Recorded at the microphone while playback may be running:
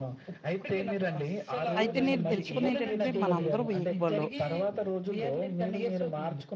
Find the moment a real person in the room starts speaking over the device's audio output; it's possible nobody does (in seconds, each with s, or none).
1.8 s